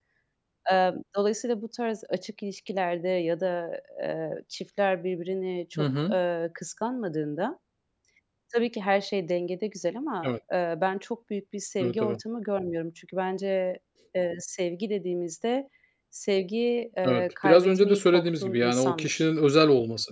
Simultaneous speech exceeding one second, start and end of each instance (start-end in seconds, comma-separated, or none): 17.0-19.2